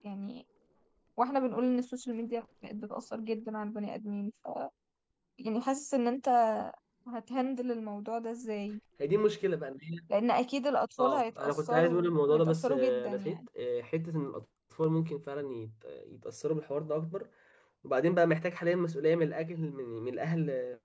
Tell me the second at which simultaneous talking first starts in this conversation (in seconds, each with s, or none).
11.0 s